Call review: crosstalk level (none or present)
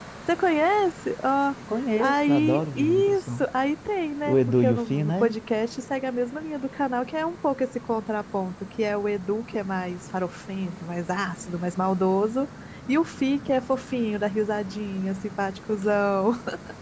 present